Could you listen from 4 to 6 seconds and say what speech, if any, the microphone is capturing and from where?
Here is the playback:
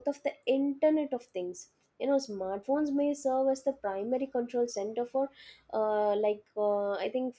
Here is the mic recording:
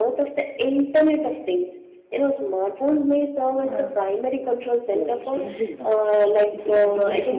both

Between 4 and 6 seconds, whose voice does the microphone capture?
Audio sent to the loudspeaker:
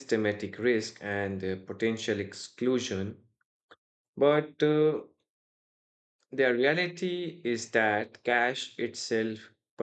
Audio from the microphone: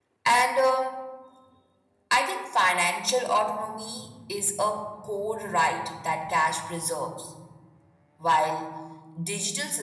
user only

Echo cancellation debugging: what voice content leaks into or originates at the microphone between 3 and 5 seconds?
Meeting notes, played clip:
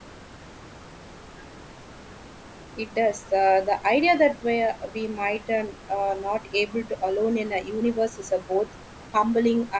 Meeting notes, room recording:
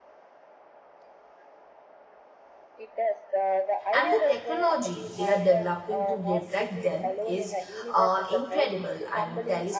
both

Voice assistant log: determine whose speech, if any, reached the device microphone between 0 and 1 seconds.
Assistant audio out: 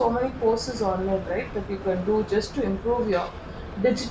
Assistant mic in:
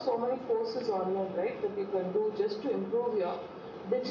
echo only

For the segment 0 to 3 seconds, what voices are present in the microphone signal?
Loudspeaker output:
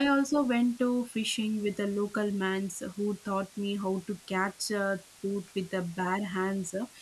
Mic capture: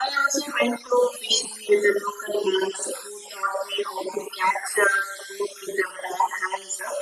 echo only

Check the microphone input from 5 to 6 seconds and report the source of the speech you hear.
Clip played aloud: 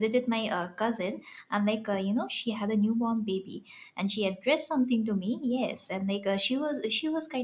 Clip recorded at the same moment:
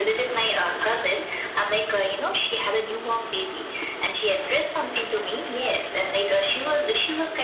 echo only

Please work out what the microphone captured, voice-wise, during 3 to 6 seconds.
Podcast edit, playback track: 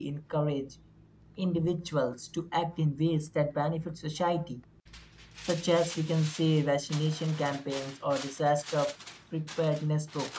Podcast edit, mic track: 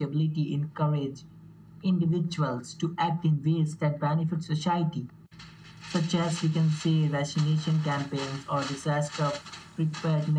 echo only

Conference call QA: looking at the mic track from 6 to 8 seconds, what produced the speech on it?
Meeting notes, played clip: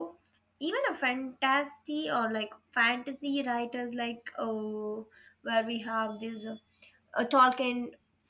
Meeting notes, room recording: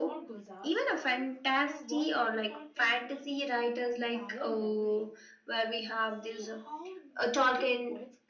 both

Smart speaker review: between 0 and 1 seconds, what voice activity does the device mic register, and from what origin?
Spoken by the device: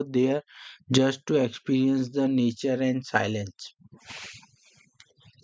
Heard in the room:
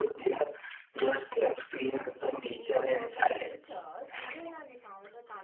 echo only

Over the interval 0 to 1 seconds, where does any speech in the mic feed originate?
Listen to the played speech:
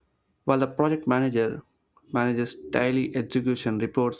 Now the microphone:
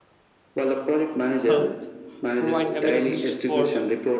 echo only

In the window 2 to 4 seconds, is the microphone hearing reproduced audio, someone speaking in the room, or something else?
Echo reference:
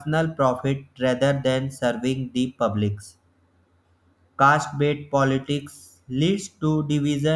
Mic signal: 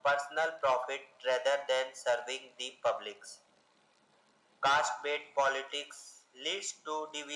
echo only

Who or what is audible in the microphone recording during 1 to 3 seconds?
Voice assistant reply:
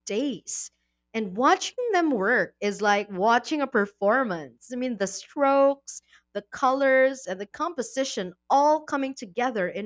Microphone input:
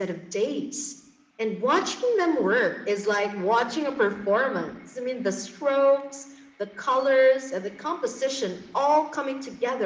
echo only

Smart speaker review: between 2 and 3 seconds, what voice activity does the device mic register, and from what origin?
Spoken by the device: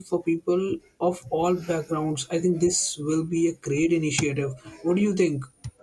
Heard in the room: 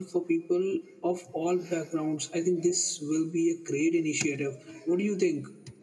echo only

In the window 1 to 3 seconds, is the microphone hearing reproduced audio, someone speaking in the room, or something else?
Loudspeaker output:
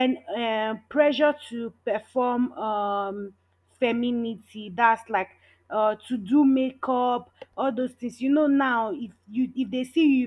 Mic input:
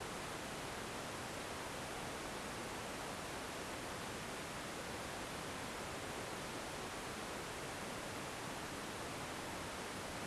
neither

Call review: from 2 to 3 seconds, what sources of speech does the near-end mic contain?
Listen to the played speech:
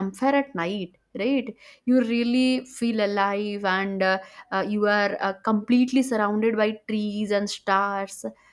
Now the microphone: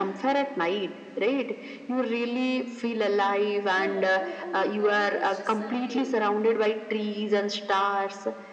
echo only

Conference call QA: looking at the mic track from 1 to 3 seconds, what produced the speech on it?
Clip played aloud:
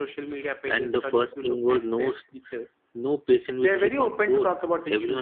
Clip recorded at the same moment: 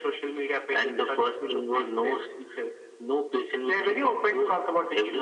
echo only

